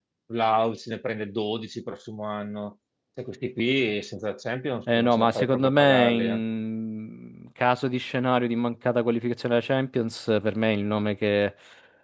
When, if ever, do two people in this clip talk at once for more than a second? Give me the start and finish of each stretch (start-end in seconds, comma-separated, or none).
4.9-6.4